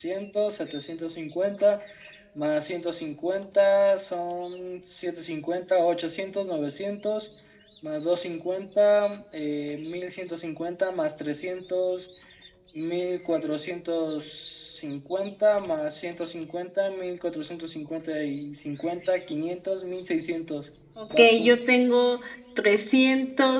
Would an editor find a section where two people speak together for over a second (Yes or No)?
No